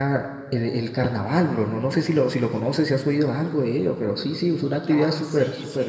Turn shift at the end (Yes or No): Yes